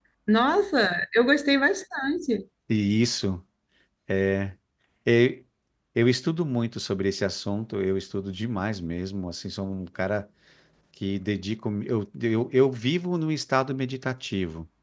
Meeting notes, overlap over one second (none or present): none